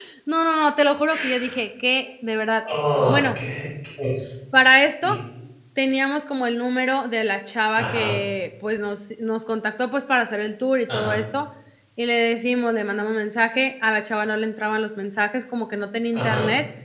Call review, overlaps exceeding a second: none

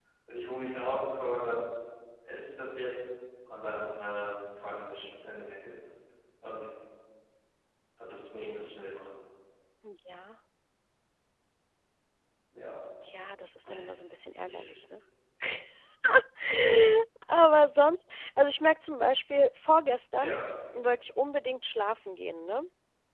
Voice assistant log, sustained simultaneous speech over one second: none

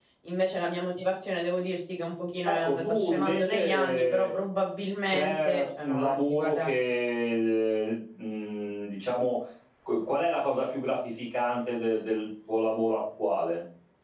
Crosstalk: present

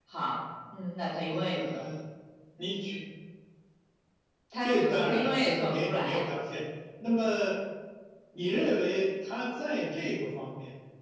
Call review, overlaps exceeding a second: present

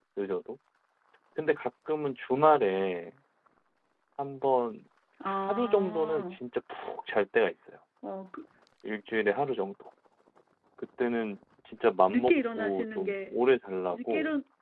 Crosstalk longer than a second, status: present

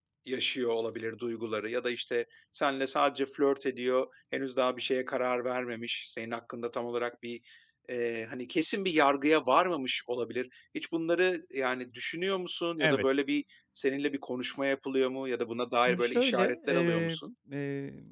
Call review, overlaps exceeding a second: present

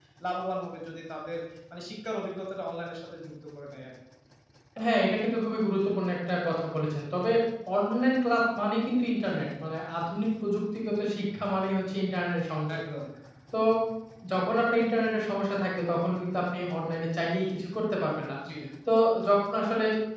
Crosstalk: none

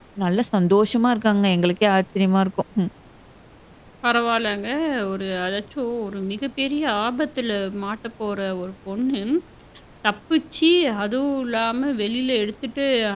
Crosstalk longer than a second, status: none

